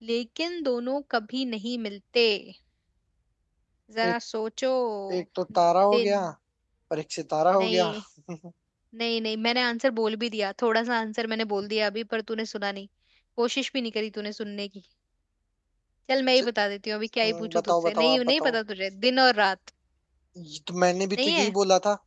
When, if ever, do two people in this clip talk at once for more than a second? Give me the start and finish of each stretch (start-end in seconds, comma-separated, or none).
17.2-18.6